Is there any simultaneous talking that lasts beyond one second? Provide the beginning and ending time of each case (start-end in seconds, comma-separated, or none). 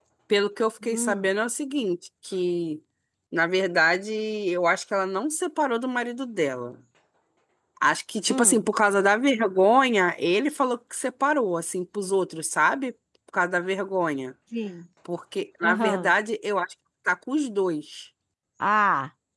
none